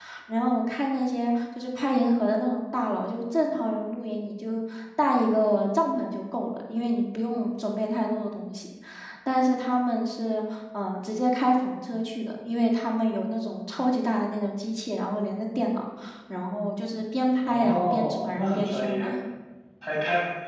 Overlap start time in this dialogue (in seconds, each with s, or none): 17.4 s